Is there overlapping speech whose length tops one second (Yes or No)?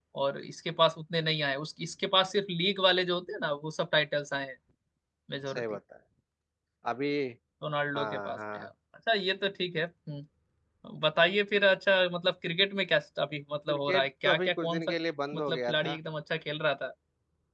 Yes